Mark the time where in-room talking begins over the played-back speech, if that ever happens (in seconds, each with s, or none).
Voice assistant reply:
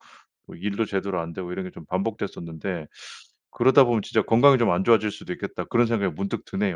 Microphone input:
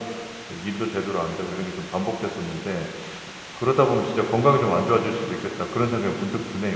none